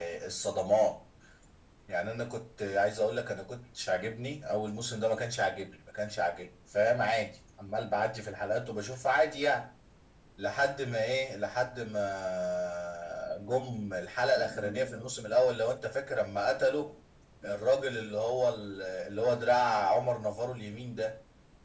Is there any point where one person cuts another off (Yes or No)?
No